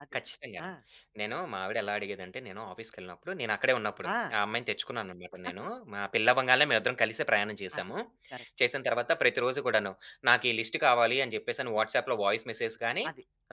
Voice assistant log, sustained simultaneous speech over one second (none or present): none